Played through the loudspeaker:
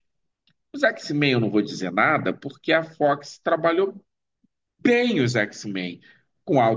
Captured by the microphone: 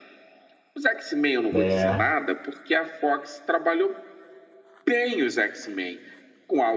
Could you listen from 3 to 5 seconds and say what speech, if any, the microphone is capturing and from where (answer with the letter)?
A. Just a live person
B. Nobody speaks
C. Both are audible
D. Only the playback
D